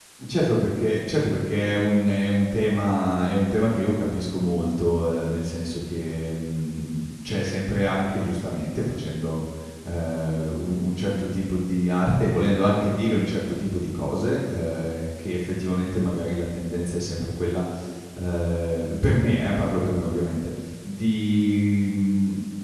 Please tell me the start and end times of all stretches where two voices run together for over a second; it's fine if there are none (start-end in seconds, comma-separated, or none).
none